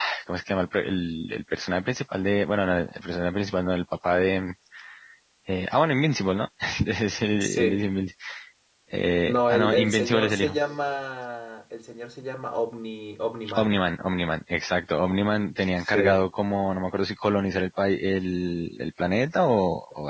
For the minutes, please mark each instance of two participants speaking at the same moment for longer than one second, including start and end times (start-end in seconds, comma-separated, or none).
9.3-10.6